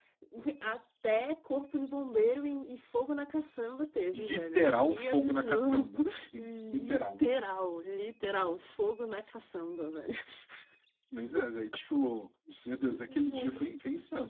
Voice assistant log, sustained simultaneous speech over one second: present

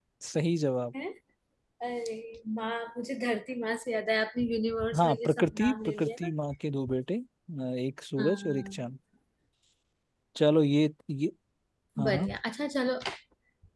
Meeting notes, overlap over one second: present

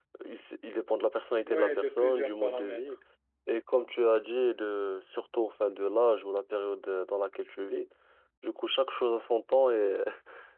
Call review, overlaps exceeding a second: present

